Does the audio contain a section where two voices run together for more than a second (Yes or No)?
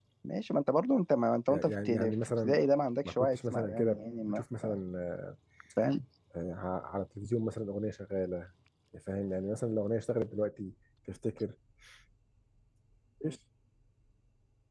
Yes